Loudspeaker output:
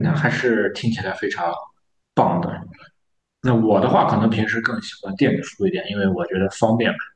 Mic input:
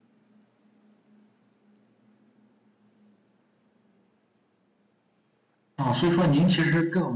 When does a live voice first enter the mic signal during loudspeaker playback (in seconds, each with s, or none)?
5.8 s